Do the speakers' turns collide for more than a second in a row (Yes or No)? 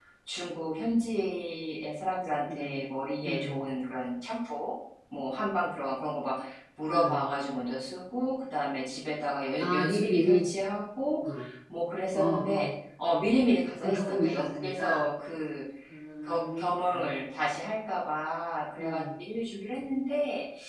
Yes